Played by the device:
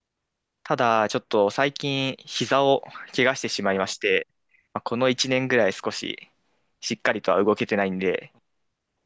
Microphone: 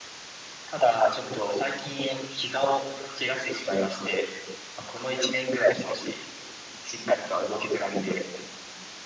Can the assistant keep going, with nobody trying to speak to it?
Yes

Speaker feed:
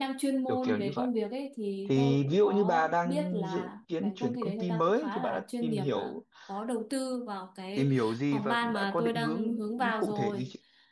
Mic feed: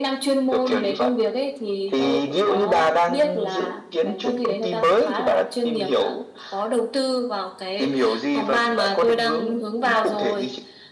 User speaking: No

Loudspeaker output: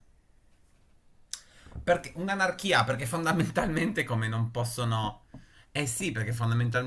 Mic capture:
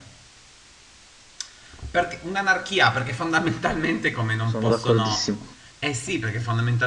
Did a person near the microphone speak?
Yes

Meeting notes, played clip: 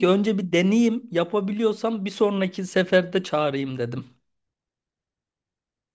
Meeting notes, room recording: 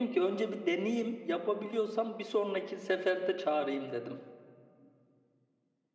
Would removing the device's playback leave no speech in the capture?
Yes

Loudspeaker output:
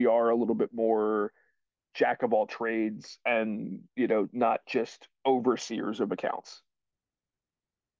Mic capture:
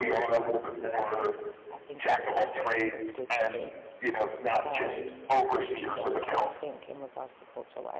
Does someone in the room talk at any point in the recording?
Yes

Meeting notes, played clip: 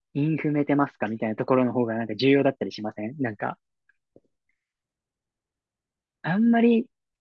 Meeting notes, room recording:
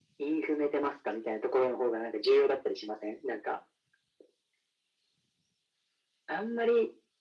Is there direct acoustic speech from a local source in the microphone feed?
No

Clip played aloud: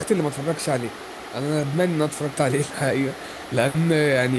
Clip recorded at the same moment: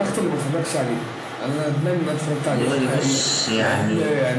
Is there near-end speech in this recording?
Yes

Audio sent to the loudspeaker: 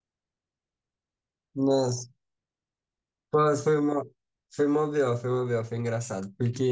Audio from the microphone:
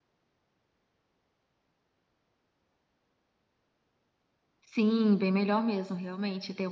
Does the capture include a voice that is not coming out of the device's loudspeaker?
Yes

